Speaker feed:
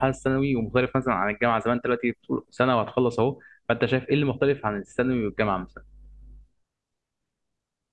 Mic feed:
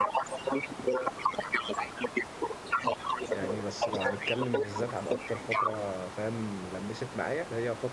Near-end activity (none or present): present